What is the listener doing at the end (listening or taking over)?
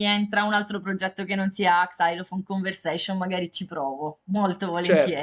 taking over